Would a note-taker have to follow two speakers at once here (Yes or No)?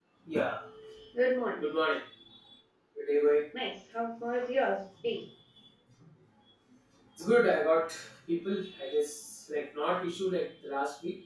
No